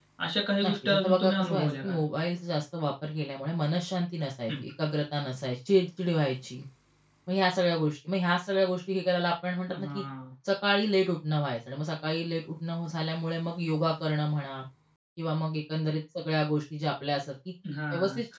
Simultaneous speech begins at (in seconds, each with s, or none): 0.6 s